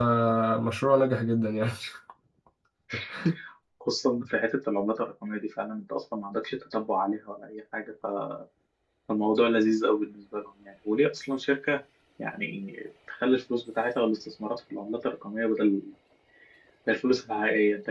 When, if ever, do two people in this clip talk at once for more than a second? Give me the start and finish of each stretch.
none

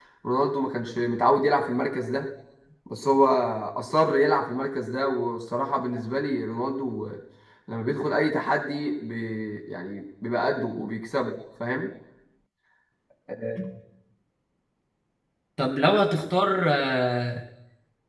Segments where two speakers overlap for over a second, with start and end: none

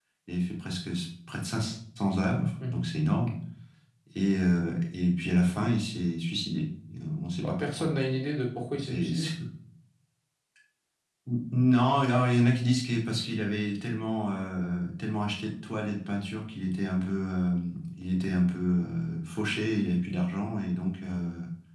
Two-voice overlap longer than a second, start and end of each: none

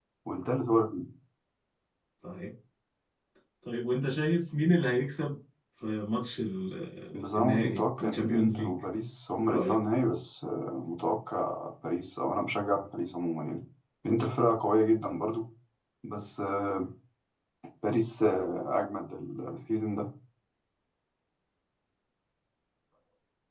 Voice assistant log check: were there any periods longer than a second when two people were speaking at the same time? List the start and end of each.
7.4-8.7

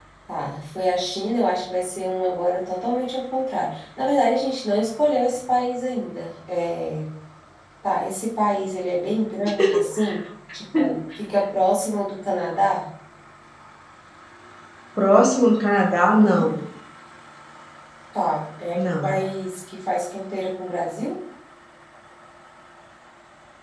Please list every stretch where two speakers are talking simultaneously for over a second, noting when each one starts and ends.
none

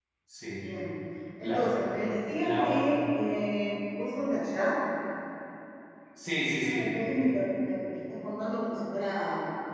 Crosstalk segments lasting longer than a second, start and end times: none

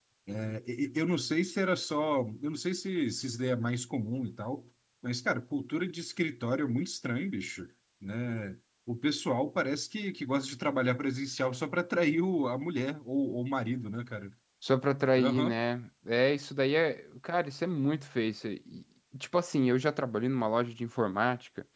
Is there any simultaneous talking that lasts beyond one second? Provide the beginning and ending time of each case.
none

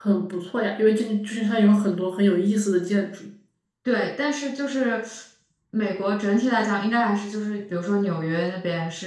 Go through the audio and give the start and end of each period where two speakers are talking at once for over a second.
none

